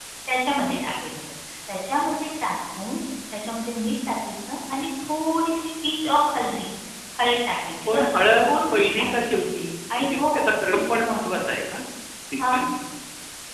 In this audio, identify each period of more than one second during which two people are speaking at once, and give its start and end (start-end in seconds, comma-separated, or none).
7.9-9.4